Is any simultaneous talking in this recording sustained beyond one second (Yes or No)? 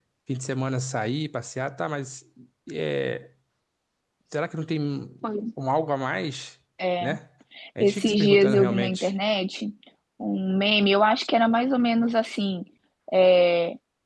Yes